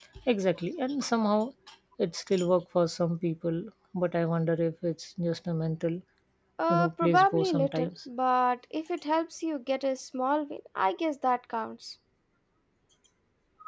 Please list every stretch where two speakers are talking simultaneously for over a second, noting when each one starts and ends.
6.7-7.9

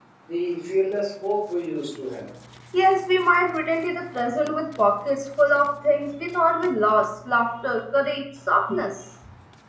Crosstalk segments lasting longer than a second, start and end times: none

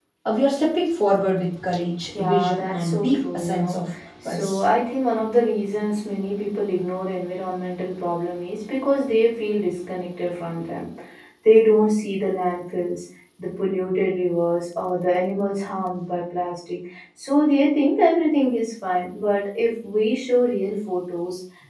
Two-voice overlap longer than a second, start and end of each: 2.2-3.8

